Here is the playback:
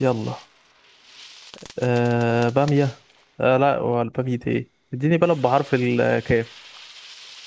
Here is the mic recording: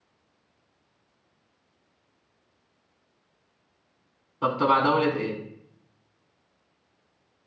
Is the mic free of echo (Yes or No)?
Yes